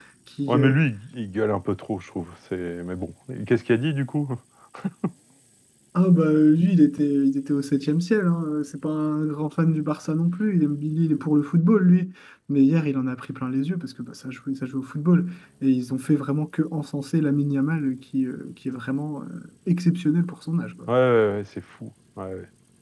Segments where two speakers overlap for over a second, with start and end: none

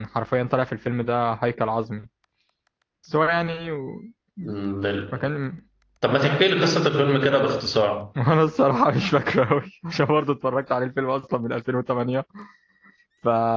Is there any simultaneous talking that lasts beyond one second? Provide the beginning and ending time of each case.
none

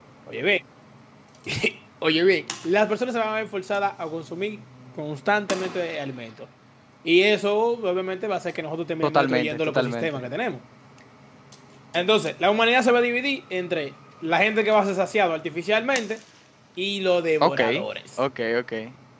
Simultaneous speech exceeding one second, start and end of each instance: 9.0-10.3

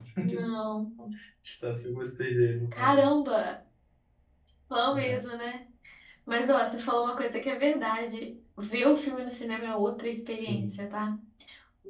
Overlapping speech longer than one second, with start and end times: none

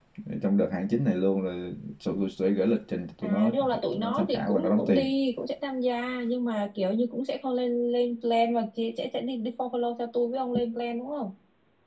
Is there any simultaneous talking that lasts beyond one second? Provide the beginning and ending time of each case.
3.2-5.1

